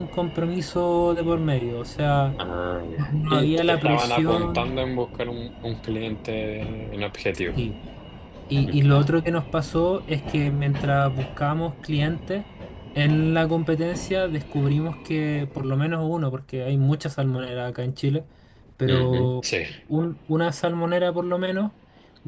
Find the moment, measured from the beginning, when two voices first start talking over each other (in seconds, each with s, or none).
3.0 s